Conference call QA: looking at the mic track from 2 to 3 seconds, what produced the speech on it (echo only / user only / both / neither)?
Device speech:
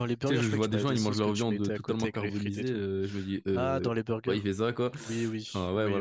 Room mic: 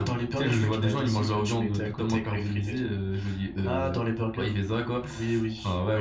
echo only